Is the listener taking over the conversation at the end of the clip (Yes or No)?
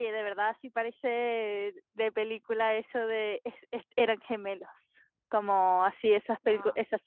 No